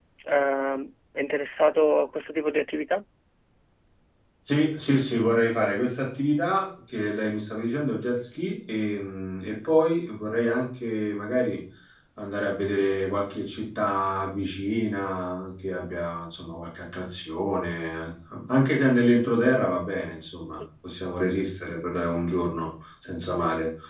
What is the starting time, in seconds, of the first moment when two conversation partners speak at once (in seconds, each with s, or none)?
none